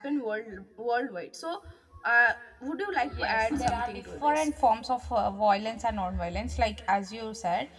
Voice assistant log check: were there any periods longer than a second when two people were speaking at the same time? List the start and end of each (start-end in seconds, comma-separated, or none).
3.2-4.5